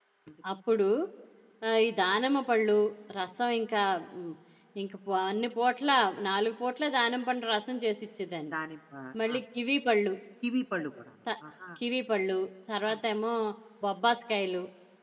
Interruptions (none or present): none